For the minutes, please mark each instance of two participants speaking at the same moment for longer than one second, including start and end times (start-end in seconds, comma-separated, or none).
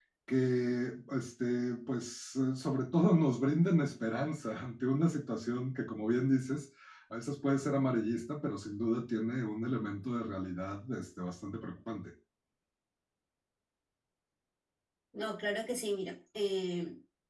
none